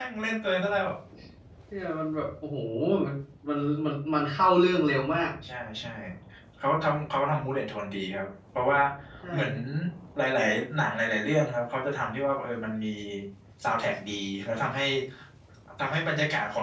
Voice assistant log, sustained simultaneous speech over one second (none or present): none